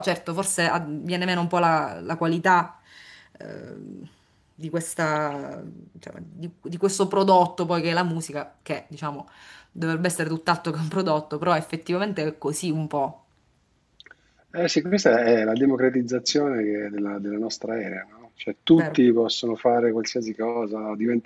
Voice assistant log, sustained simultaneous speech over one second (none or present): none